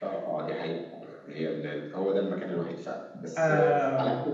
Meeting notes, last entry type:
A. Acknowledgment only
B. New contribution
A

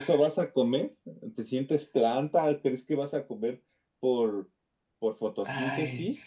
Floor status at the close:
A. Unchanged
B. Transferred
B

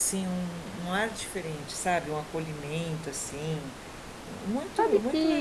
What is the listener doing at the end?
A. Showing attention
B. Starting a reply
B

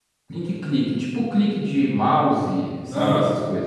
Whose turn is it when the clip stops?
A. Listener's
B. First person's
A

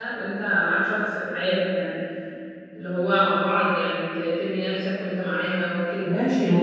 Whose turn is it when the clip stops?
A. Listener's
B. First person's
A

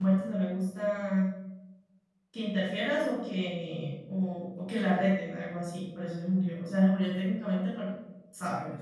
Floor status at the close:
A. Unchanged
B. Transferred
B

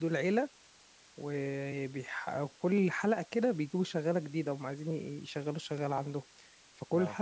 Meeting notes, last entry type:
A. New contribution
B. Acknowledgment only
B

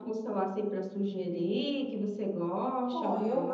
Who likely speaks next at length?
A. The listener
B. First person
A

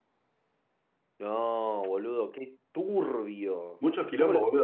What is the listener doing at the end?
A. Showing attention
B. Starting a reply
B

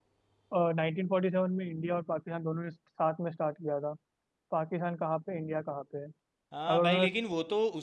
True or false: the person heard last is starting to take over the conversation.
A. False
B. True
B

